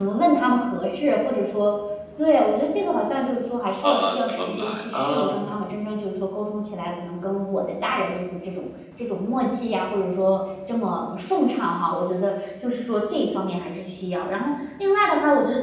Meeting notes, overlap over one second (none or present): present